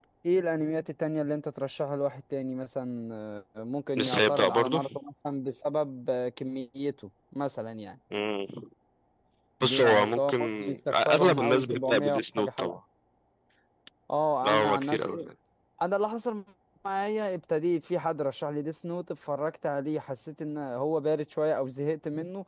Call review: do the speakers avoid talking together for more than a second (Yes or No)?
No